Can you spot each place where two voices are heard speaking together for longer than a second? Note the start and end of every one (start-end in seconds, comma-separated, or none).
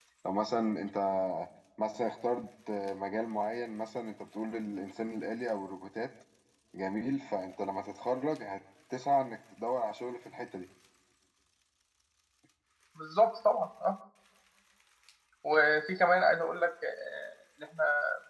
none